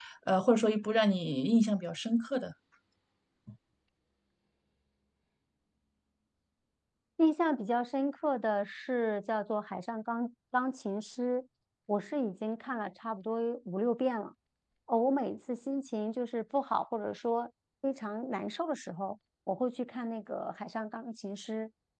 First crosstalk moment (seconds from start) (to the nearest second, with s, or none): none